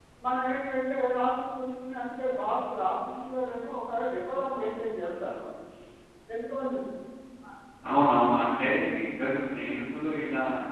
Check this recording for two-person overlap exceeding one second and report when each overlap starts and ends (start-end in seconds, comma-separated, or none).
none